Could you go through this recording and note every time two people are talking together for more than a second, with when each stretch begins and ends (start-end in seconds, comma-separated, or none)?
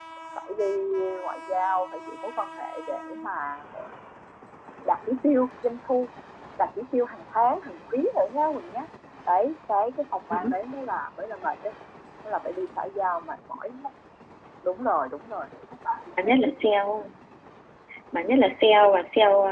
none